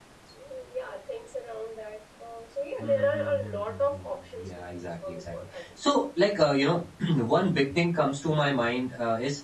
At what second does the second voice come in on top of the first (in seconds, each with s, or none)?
2.8 s